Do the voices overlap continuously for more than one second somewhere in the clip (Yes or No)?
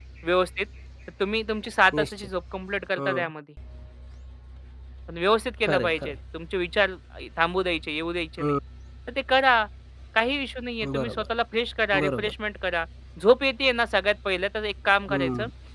No